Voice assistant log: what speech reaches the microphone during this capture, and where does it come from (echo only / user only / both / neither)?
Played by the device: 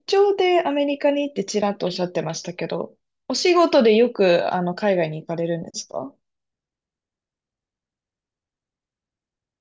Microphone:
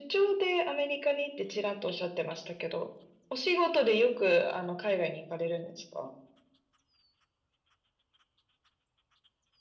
echo only